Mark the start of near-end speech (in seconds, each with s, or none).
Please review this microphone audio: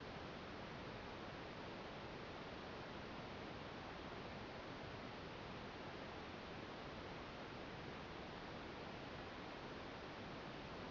none